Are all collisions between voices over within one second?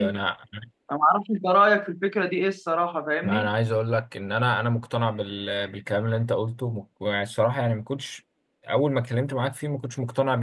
Yes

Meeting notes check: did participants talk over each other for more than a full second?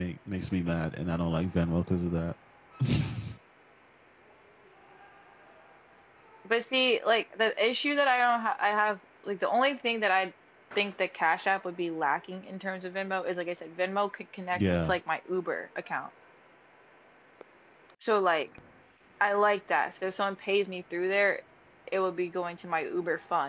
No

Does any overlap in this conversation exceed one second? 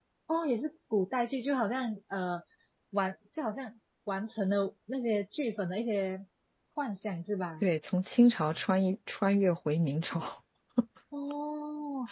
No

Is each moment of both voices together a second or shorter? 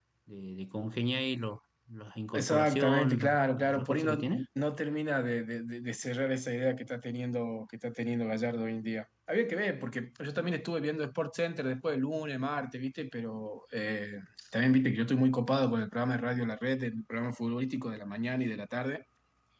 No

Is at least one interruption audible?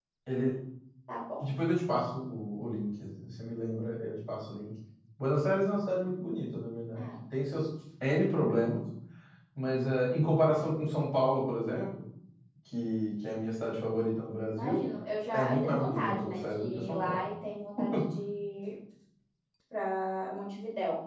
Yes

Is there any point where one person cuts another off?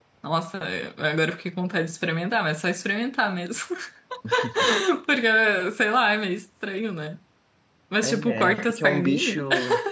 Yes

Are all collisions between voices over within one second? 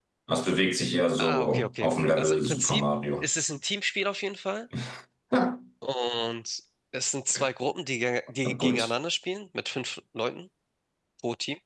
No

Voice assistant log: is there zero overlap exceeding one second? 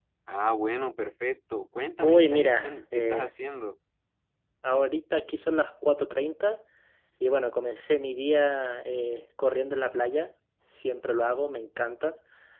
No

